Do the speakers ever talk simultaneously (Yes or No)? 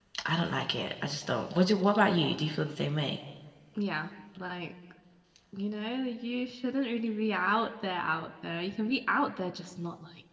No